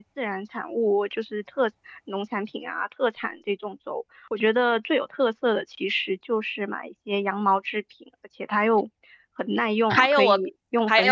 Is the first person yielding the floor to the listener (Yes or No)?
Yes